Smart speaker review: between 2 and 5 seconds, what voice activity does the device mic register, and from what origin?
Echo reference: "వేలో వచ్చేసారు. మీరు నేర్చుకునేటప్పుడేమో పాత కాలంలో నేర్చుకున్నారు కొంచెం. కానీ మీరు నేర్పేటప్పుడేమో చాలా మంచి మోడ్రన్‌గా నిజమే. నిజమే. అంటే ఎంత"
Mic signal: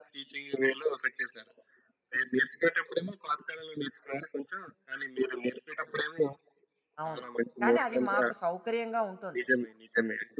echo only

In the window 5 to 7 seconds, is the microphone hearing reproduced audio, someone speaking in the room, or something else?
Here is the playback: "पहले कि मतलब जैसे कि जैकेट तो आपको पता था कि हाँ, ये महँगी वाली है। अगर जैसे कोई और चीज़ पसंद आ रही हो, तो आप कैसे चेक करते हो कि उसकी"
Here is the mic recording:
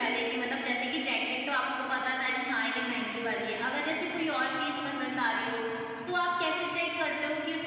echo only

